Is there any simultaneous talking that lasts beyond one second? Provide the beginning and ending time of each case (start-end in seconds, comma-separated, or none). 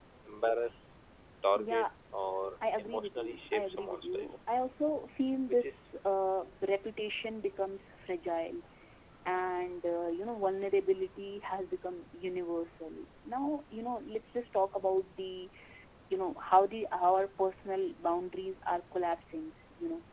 2.8-4.3